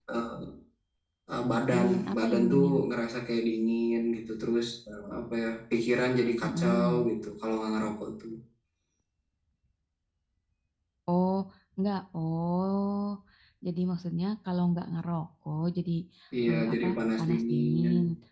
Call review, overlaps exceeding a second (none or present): present